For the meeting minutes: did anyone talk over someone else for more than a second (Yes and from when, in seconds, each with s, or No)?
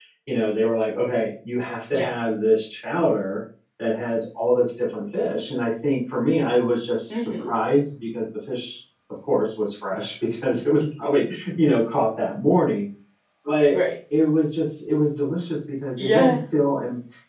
No